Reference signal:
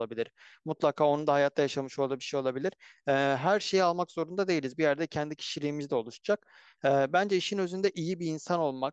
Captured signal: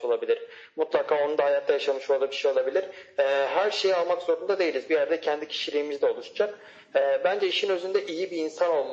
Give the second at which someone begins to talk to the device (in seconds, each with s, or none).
none